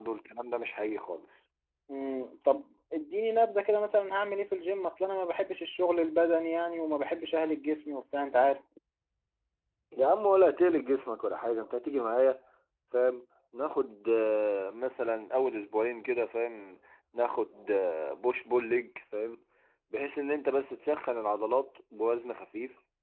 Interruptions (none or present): none